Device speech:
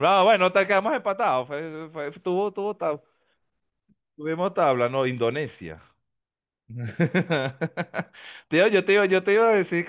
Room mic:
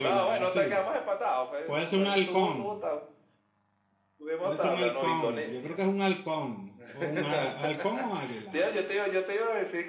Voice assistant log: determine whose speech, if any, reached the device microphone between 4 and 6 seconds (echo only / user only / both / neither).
both